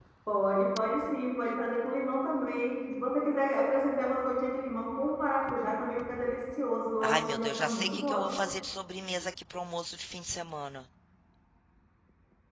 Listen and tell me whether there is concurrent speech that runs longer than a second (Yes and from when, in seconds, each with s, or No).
Yes, from 7.0 s